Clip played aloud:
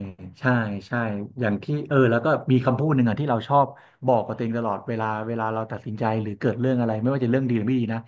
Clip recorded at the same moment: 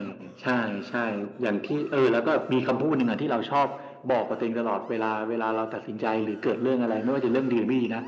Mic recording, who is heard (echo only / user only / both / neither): echo only